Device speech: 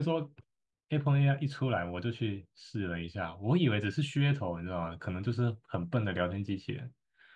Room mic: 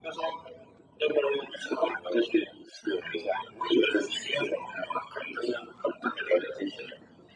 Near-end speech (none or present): none